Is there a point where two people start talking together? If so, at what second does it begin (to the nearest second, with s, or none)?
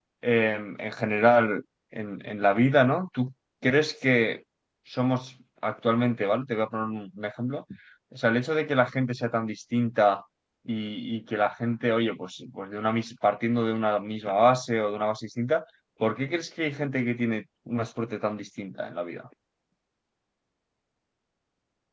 none